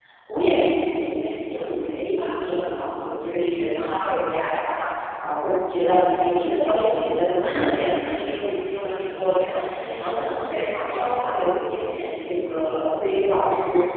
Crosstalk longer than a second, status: present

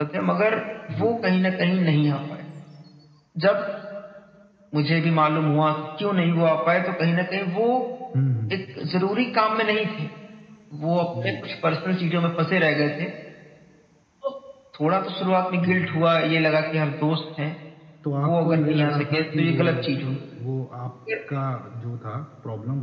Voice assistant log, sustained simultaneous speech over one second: present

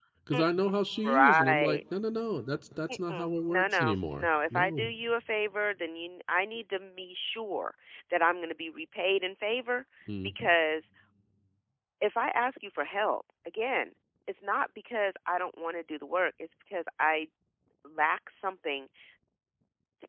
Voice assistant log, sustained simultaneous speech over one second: present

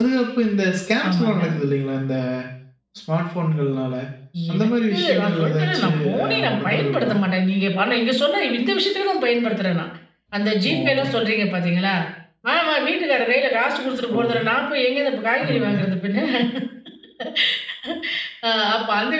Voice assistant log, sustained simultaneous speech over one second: present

